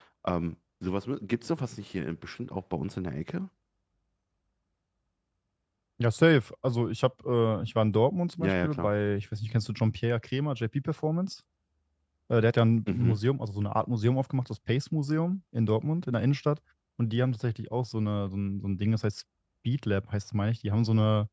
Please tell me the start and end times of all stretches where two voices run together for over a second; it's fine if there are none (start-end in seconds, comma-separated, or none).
none